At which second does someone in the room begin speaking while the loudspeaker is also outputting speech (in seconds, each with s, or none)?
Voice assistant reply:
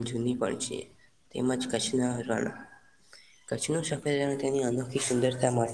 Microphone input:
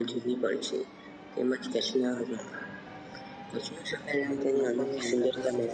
4.6 s